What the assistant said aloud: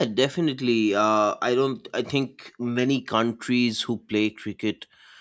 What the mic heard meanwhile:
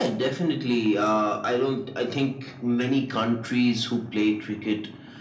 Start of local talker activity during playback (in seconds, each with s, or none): none